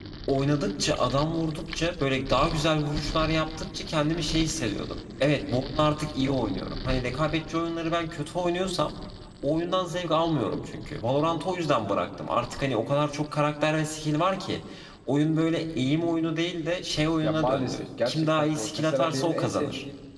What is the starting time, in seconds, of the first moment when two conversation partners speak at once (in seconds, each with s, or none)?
17.2 s